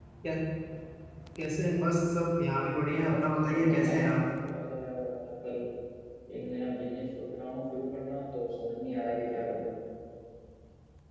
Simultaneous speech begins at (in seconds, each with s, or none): 3.0 s